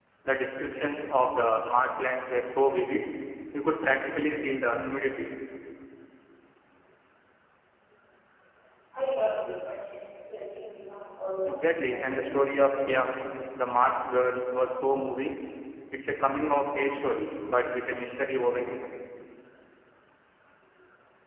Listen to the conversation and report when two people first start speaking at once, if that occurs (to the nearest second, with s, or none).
11 s